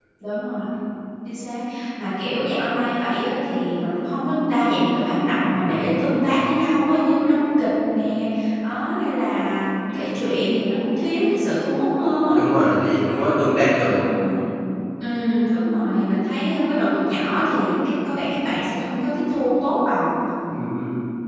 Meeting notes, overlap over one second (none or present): none